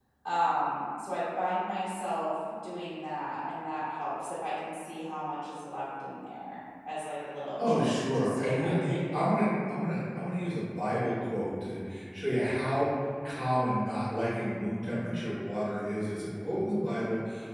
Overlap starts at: 7.6 s

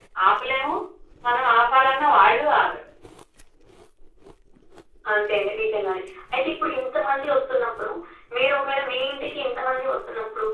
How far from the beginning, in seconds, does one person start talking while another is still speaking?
none

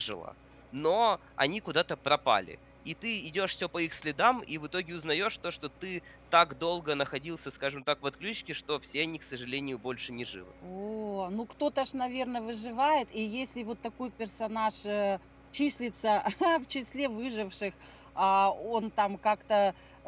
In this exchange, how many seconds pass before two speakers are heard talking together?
none

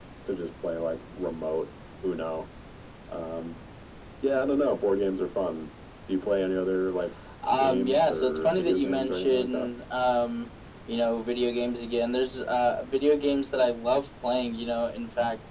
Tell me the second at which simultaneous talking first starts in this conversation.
7.5 s

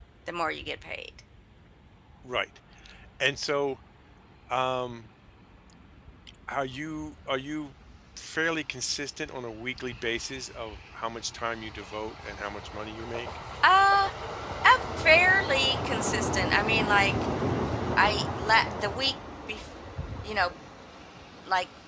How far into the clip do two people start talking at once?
none

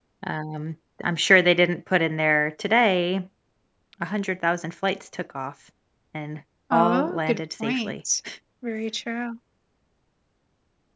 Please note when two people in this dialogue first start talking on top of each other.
6.7 s

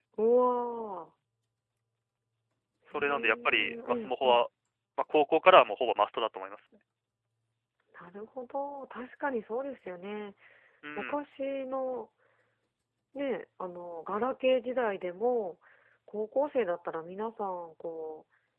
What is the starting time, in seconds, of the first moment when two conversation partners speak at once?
2.9 s

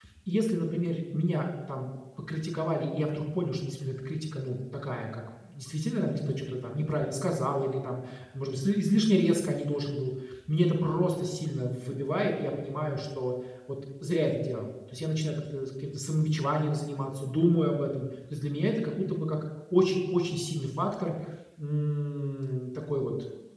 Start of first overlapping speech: none

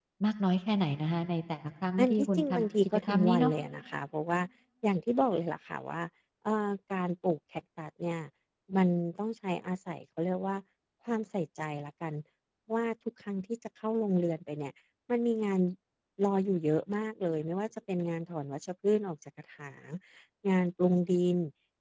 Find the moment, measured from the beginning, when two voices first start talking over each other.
2.0 s

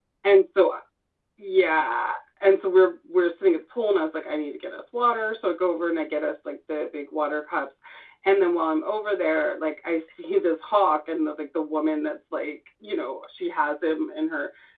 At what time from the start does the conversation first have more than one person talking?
none

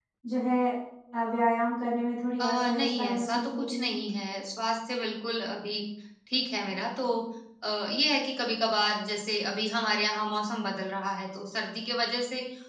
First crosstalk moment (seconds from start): 2.4 s

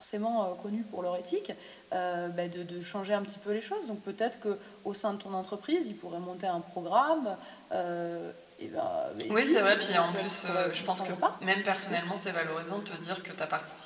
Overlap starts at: 9.2 s

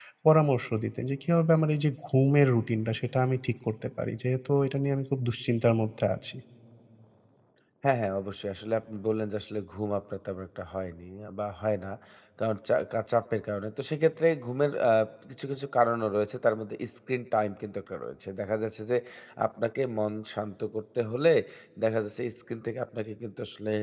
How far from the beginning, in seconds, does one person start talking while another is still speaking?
none

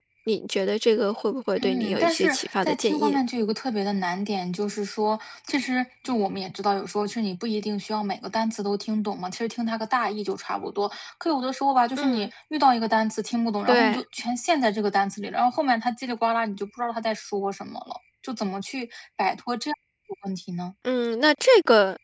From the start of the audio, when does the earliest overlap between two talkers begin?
1.6 s

